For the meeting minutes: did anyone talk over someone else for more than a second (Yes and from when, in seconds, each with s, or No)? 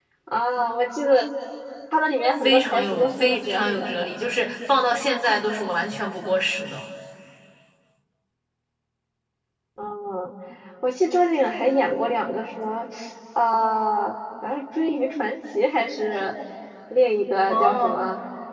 Yes, from 2.4 s